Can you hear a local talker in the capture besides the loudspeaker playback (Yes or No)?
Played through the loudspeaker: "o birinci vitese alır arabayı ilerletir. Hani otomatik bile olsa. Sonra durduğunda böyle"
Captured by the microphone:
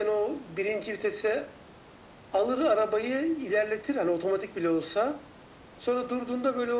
No